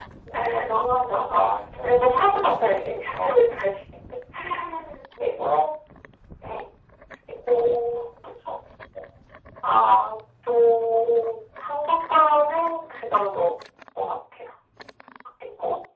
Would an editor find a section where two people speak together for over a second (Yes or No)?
Yes